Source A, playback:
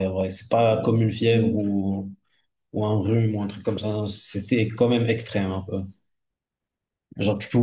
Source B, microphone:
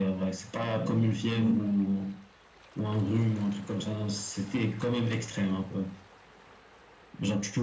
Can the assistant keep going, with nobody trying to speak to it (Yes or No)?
Yes